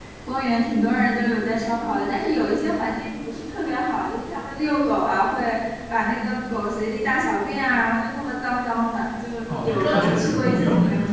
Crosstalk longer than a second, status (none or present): present